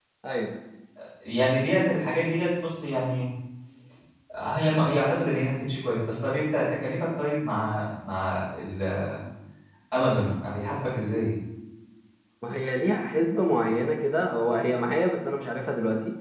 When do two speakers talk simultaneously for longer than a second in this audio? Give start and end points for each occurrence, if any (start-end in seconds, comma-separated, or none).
none